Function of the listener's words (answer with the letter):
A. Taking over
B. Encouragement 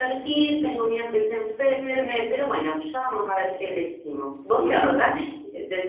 B